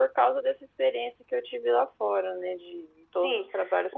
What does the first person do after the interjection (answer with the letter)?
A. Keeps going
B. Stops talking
B